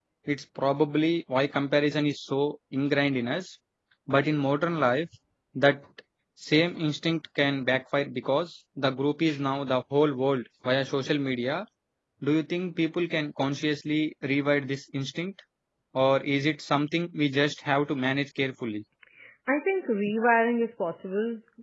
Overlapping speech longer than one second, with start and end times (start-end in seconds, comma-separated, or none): none